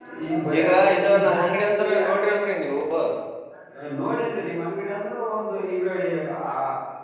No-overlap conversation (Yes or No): No